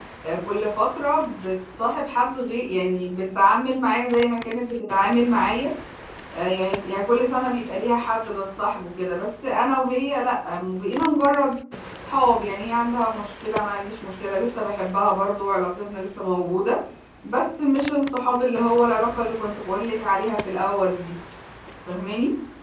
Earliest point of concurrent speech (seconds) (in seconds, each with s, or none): none